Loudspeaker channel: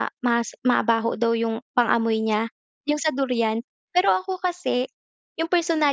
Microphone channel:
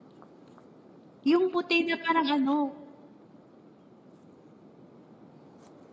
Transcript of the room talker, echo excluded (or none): yung puti na parang ano,